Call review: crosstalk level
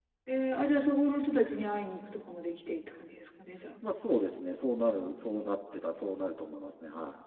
none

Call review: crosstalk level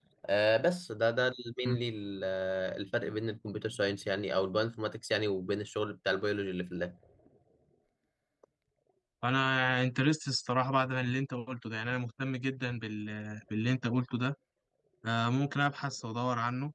none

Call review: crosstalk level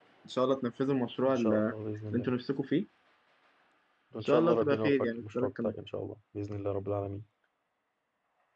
present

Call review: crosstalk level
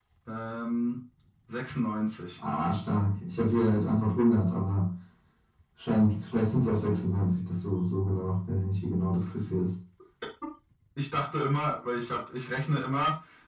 none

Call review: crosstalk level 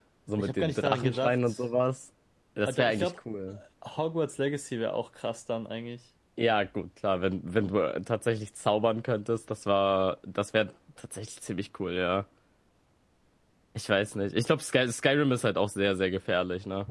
present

